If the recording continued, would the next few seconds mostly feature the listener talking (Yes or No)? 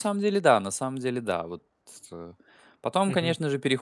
No